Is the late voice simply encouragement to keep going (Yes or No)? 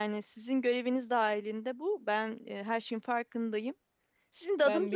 Yes